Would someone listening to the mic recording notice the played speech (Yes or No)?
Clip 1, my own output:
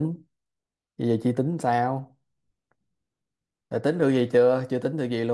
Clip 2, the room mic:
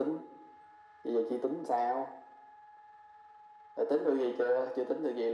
Yes